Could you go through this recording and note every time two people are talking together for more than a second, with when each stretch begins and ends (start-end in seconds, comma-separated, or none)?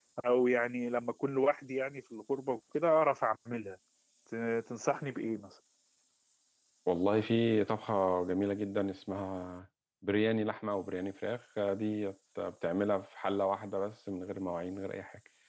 none